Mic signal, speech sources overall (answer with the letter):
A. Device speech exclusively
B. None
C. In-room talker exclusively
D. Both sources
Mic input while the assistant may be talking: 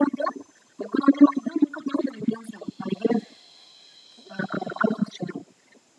A